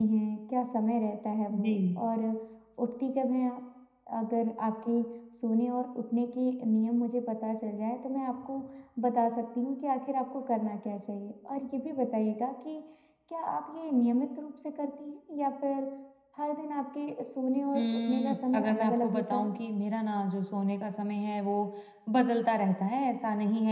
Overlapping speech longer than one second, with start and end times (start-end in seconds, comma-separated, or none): 17.8-19.5